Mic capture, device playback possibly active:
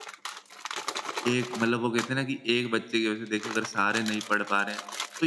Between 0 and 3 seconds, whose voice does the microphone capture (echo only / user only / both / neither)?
user only